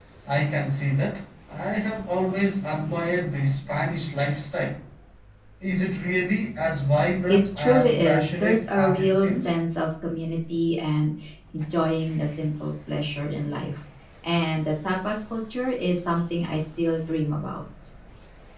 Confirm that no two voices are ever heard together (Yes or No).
No